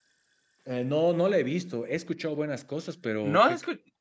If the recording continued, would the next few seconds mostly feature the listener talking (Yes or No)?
Yes